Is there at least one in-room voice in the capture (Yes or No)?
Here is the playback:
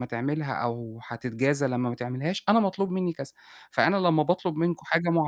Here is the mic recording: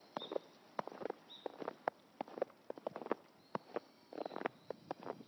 No